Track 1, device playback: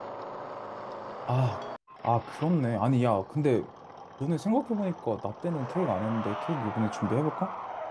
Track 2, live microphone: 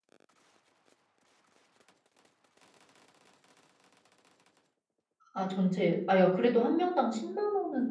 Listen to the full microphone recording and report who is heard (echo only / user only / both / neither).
user only